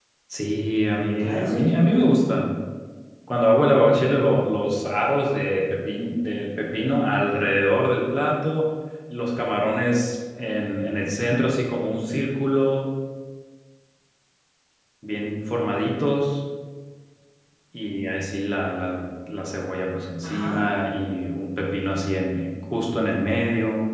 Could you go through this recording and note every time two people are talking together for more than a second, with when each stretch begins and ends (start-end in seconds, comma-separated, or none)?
1.2-2.4